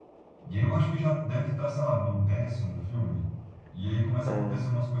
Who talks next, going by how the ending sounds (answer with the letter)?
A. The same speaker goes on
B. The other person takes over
A